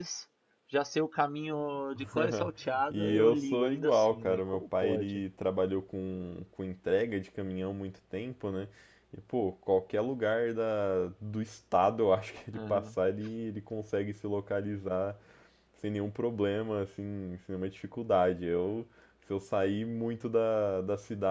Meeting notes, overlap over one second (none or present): present